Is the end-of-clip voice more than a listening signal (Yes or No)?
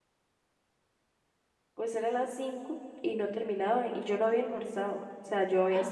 No